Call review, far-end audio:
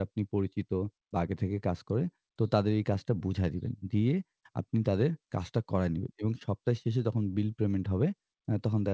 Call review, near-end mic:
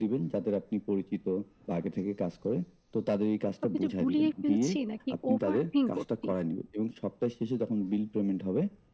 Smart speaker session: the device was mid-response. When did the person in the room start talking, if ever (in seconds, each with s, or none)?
3.6 s